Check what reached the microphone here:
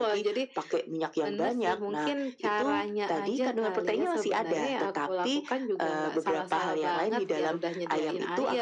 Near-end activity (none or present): none